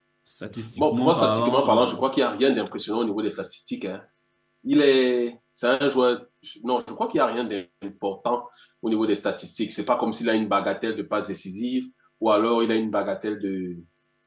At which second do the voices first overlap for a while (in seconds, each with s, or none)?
0.8 s